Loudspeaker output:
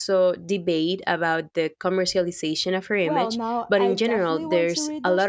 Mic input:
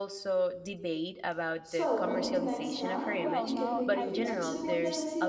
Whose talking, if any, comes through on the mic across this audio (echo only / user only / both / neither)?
both